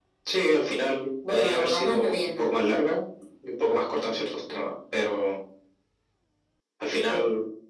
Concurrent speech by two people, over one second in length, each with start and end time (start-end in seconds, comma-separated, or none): 1.3-2.5